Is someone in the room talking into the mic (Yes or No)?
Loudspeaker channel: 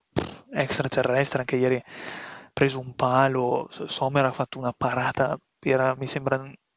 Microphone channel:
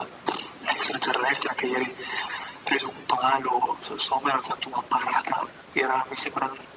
No